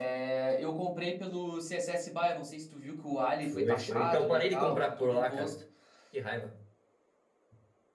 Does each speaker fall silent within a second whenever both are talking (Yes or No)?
No